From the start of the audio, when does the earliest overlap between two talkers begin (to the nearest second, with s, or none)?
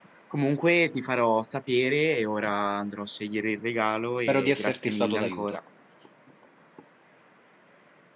4 s